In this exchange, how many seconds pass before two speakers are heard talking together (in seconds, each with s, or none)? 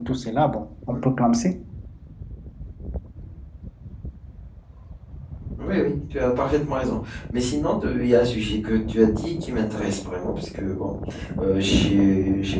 none